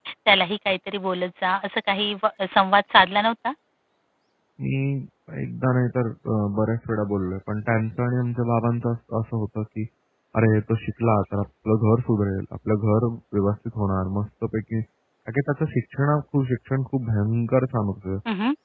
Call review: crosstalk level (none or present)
none